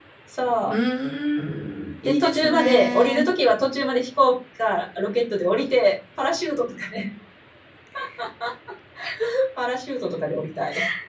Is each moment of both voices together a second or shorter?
No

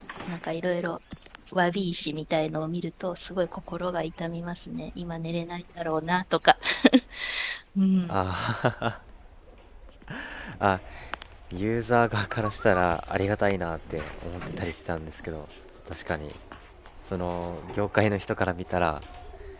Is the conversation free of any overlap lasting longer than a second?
Yes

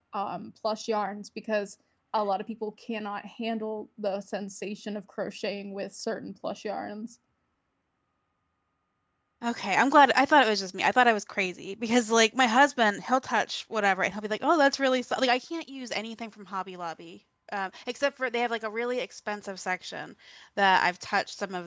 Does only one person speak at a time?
Yes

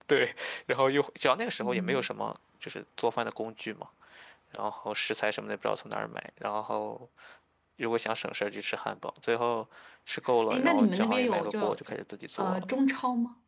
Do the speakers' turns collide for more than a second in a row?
Yes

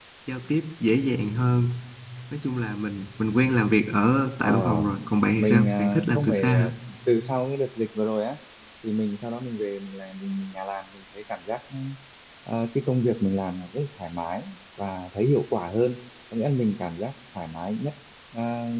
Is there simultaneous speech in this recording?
Yes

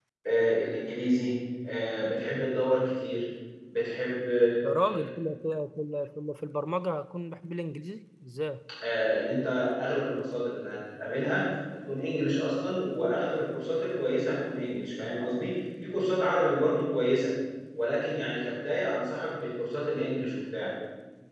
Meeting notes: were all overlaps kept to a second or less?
Yes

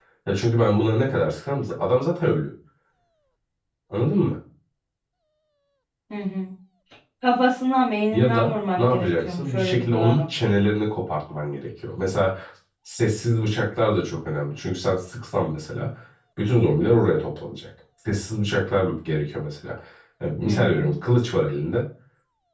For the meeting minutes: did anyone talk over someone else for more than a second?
Yes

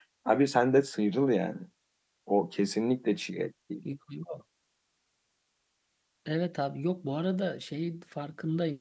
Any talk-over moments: No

